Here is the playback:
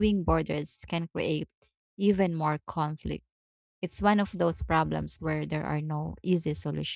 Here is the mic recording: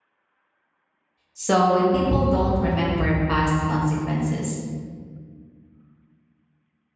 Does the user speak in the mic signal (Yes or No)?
Yes